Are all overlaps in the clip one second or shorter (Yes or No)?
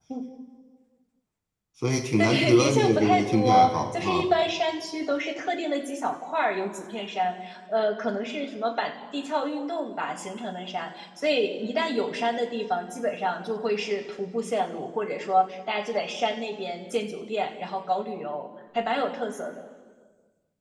No